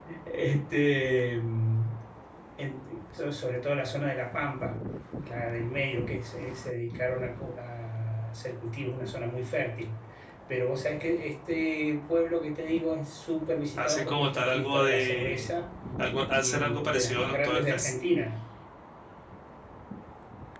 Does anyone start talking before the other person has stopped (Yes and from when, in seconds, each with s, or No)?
Yes, from 13.8 s